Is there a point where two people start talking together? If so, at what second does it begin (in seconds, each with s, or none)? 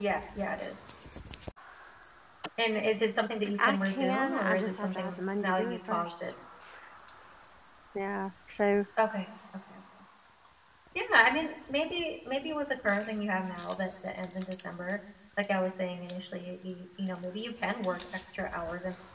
3.4 s